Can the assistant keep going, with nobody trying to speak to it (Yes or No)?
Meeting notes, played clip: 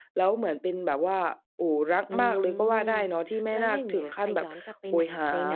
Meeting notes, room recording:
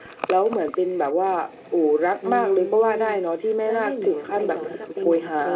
Yes